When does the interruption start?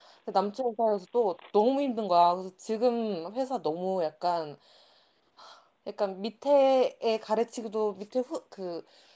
none

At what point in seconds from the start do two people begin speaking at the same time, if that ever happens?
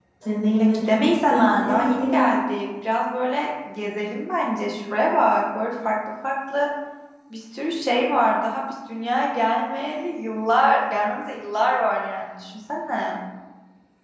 0.6 s

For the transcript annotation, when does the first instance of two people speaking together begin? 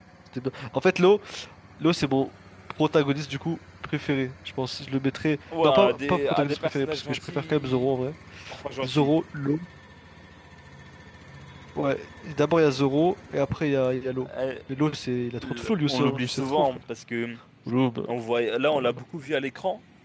5.6 s

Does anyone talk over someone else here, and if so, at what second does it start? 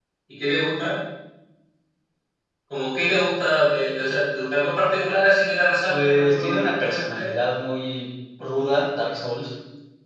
5.9 s

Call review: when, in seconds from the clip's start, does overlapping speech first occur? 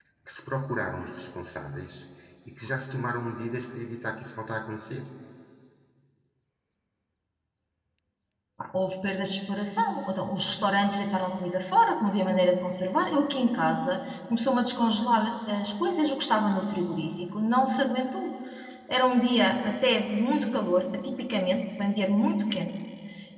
none

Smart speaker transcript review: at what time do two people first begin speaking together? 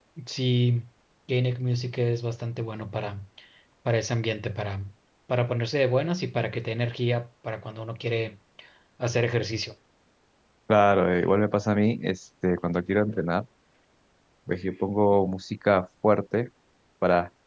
none

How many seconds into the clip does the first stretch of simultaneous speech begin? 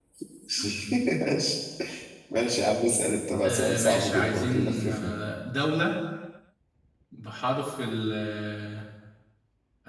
3.4 s

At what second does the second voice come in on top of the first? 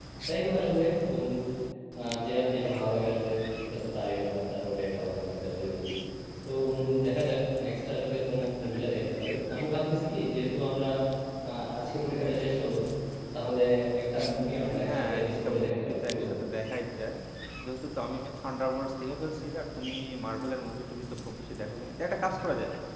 14.8 s

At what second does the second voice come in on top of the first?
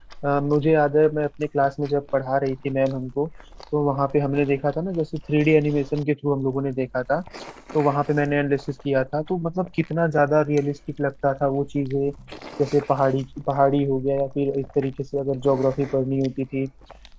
none

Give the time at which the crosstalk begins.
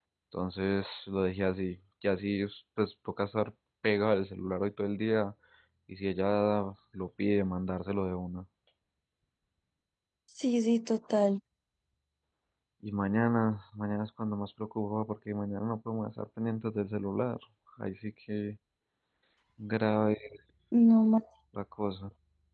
none

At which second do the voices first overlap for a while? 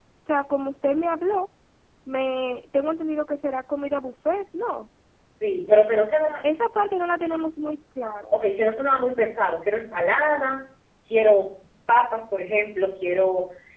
none

